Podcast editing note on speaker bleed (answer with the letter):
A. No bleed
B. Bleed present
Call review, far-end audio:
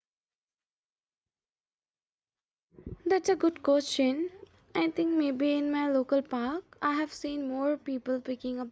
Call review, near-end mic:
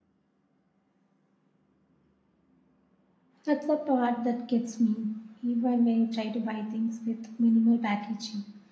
A